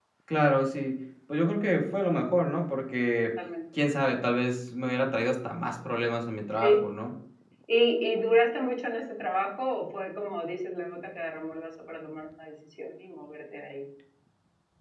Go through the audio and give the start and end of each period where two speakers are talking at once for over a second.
none

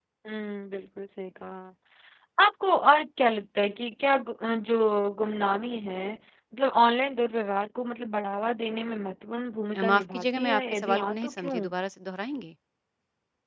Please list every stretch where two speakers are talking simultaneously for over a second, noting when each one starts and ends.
9.8-11.6

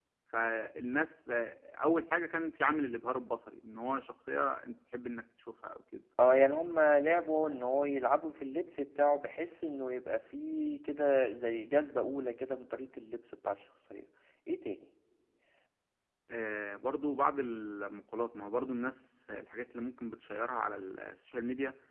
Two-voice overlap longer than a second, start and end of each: none

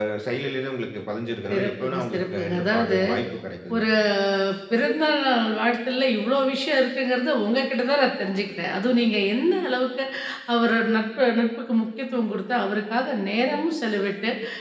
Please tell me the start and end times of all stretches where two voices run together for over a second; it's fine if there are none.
1.5-3.0

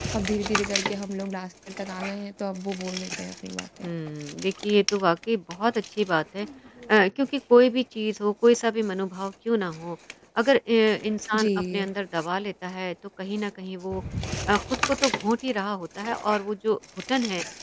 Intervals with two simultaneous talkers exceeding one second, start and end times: none

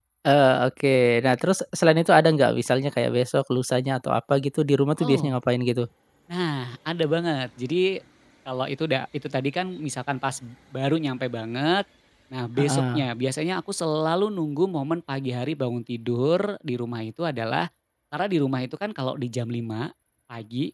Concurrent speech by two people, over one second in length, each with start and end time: none

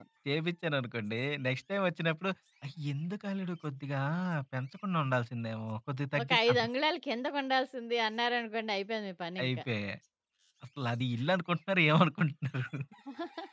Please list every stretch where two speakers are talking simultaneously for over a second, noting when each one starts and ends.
none

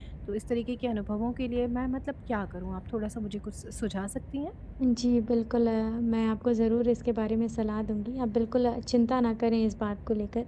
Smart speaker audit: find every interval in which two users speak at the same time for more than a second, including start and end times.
none

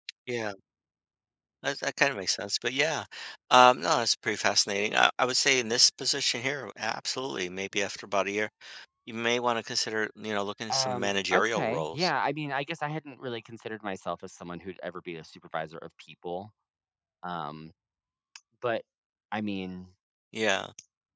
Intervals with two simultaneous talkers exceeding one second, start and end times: 10.7-12.1

